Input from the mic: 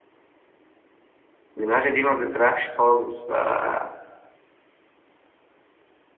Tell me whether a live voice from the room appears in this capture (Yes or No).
Yes